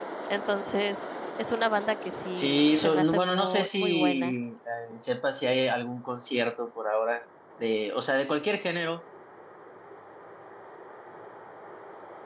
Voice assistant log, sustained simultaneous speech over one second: present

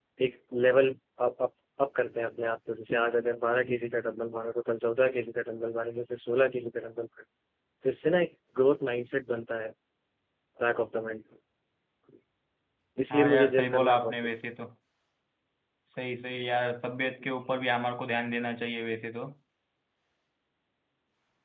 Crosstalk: present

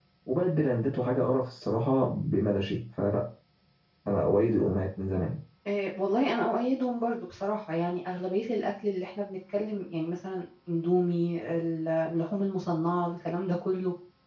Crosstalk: none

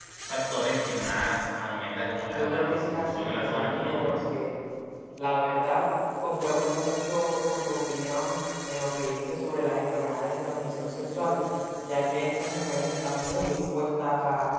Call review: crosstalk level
present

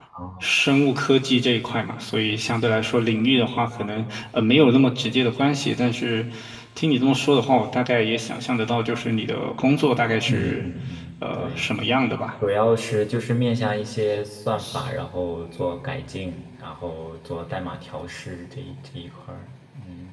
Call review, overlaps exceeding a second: none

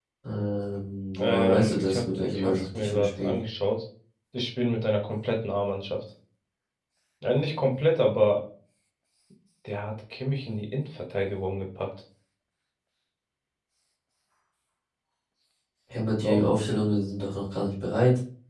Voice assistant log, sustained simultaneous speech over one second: present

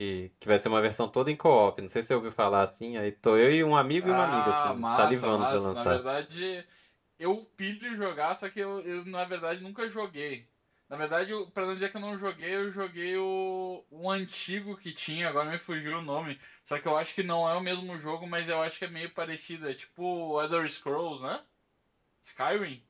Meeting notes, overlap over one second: present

